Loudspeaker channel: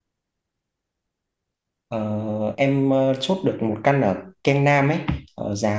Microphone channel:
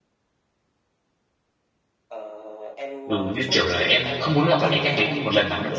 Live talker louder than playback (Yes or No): Yes